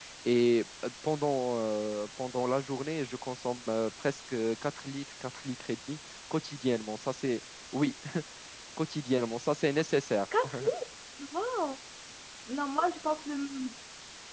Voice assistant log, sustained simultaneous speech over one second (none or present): none